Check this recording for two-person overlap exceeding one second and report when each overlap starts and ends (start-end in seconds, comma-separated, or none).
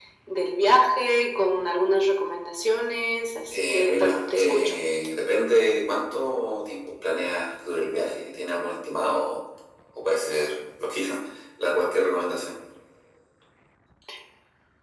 3.5-4.8